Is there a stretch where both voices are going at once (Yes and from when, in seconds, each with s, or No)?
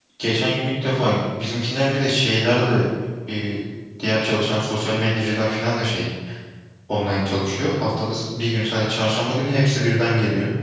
No